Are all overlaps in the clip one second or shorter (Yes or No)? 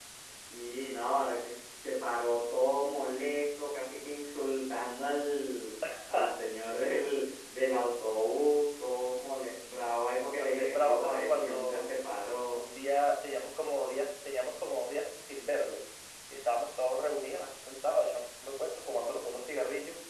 No